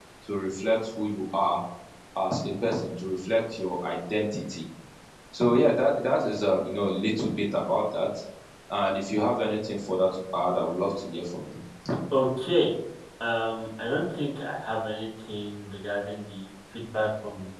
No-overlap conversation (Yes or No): Yes